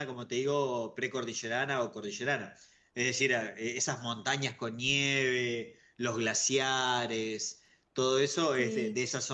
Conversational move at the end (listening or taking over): listening